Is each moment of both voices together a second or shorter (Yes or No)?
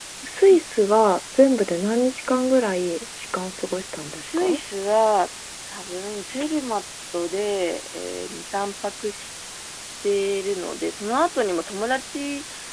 Yes